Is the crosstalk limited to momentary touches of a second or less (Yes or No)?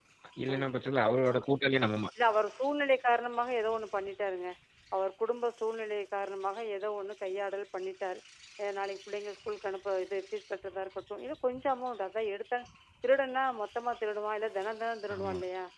Yes